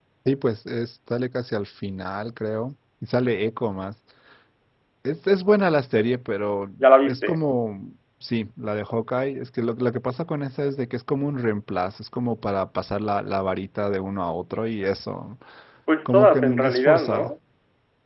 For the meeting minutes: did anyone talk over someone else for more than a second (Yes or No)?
Yes